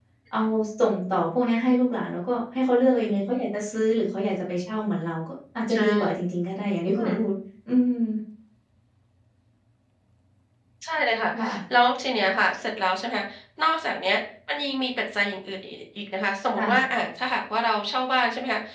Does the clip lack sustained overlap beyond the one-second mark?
Yes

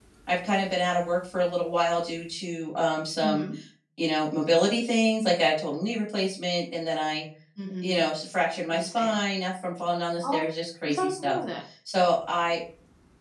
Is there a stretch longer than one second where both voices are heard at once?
No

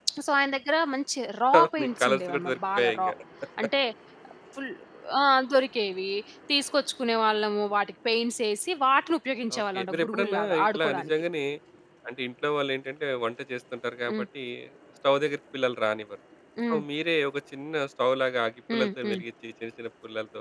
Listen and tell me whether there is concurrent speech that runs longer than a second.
Yes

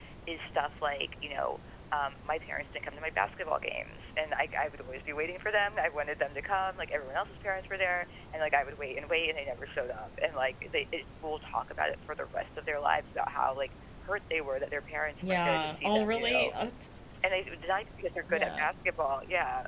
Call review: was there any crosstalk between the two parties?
Yes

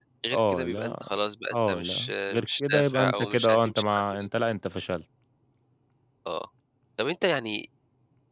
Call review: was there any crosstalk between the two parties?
Yes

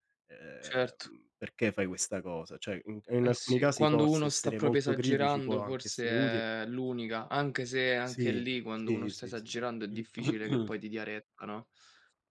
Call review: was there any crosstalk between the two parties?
Yes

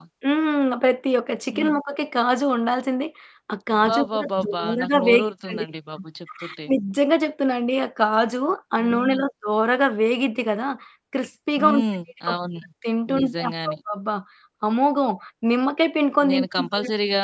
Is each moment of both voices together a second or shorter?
No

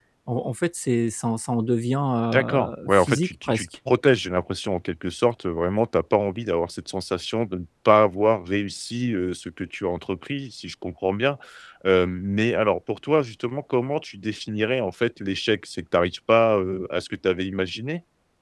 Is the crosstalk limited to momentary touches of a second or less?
No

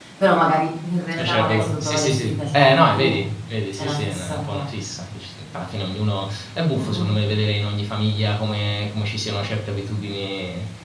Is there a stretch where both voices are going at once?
Yes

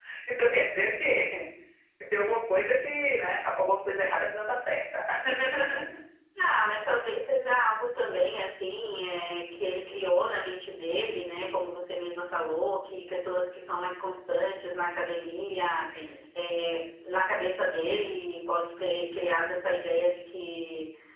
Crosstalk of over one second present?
No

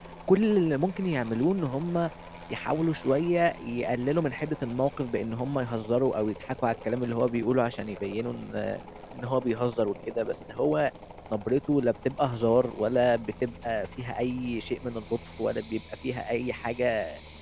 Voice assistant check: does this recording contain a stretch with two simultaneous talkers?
No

